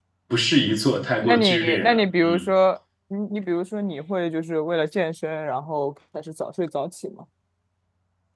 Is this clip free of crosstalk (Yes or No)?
No